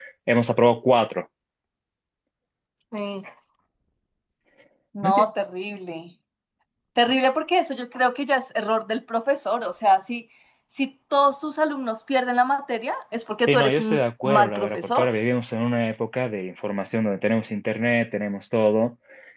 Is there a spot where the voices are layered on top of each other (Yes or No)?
Yes